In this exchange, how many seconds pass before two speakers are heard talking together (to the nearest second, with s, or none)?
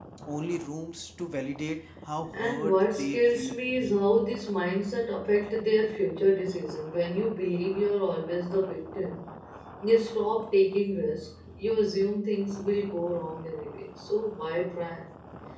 2 s